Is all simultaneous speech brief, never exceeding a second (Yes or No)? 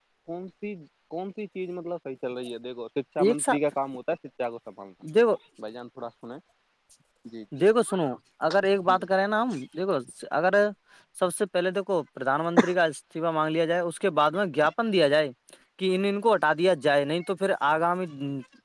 Yes